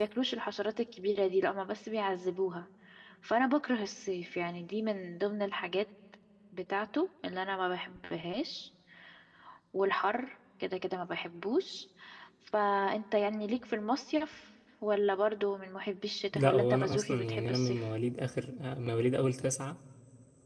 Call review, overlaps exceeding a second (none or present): present